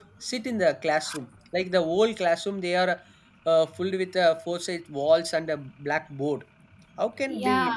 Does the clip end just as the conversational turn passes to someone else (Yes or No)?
No